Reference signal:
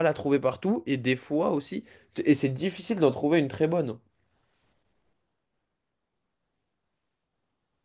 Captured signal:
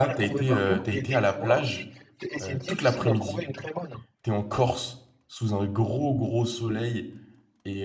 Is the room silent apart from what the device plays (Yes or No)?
No